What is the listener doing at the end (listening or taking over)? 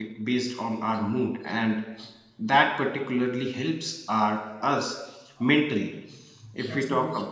listening